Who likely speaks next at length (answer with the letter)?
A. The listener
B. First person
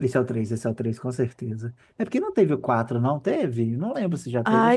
A